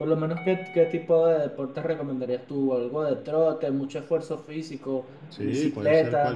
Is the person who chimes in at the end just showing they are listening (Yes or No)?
No